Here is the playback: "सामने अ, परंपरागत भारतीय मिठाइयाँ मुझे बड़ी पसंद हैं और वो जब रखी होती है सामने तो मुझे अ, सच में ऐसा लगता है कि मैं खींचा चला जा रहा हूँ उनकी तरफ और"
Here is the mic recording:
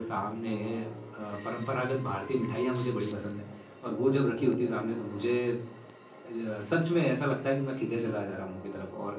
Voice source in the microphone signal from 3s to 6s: echo only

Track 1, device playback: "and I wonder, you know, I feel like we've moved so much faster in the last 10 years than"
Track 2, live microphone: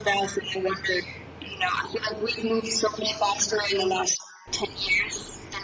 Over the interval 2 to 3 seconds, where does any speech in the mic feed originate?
echo only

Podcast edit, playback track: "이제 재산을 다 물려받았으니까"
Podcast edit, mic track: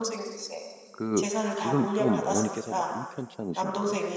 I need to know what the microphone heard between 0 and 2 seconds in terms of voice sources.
both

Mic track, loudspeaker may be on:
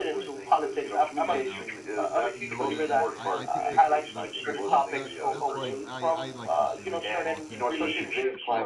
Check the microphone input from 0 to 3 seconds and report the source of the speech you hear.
both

